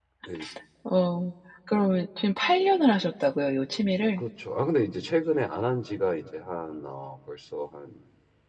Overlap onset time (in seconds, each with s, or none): none